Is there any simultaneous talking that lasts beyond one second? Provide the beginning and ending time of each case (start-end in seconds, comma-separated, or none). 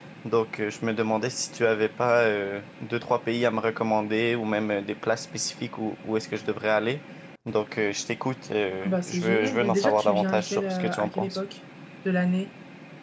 8.8-11.4